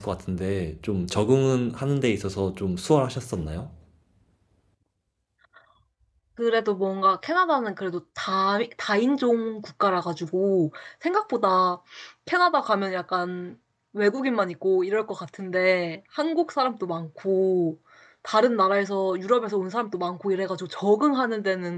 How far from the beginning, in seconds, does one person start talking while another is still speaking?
none

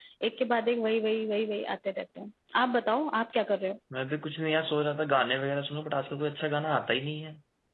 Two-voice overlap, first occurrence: none

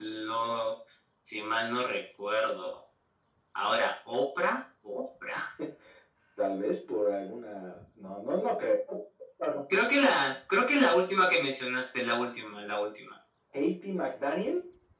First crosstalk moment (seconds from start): none

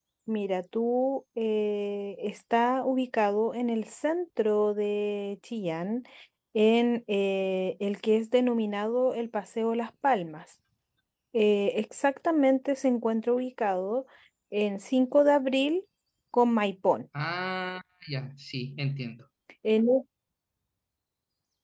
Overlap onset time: none

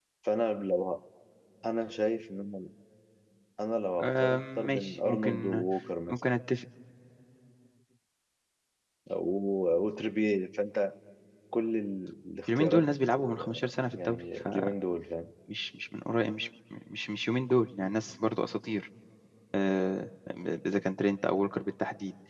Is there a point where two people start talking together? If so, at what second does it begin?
4.0 s

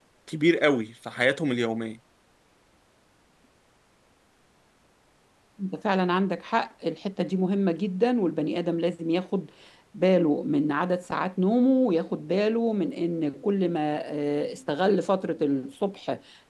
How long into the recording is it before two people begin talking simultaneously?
none

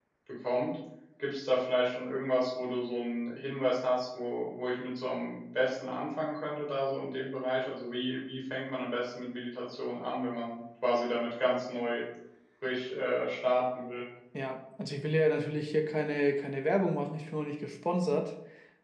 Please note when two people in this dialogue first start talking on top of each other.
none

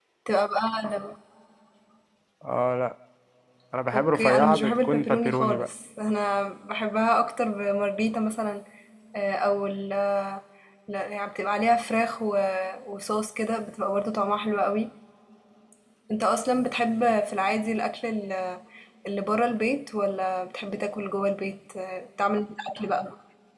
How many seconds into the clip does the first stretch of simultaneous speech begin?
3.9 s

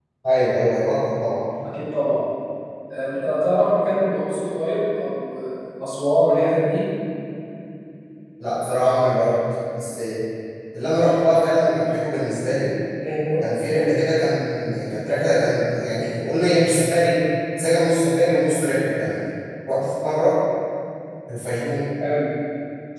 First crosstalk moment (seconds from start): none

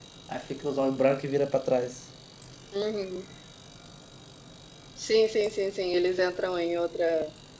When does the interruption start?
none

